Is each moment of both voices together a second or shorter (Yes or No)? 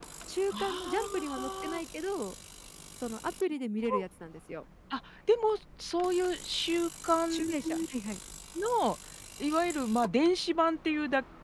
No